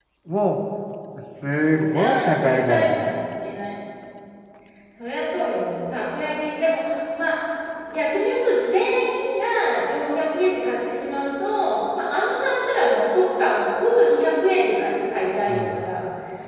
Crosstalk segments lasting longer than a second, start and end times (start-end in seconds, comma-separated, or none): 1.6-3.1